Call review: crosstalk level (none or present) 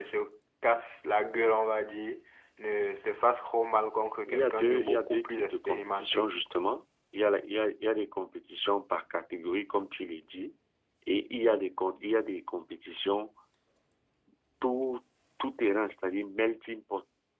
present